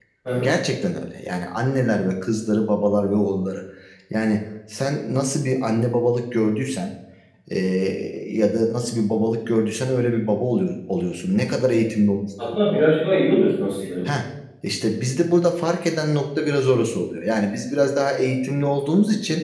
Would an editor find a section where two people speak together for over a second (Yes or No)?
No